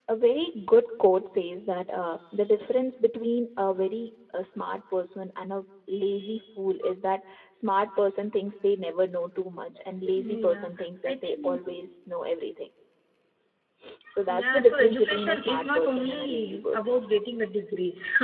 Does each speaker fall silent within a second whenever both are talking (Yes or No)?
No